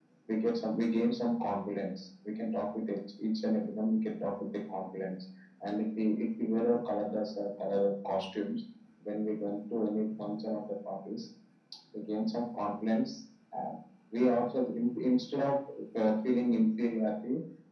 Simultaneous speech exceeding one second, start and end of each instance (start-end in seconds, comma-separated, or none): none